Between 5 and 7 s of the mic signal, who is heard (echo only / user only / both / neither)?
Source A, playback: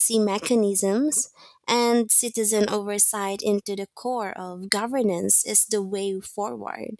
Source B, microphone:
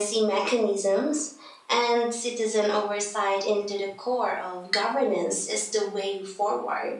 echo only